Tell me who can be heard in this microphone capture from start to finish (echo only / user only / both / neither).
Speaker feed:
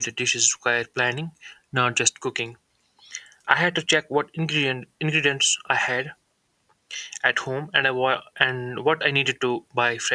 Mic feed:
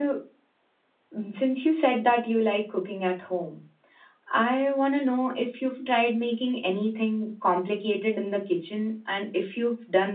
user only